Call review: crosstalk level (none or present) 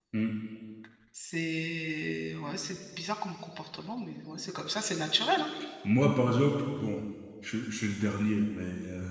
none